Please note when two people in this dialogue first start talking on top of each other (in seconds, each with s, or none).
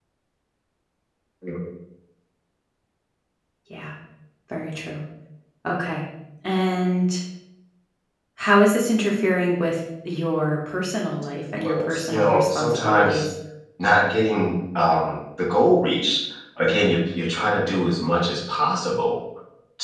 11.6 s